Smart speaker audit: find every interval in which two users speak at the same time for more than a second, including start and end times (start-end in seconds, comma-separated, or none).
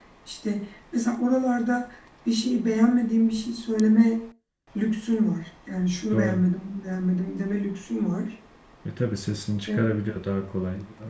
none